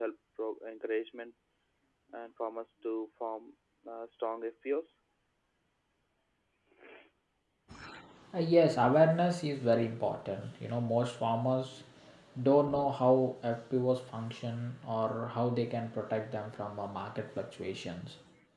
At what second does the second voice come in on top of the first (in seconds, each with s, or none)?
none